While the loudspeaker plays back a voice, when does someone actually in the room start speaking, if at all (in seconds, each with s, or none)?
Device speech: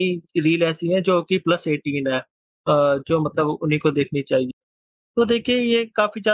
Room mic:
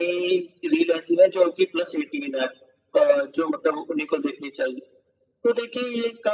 none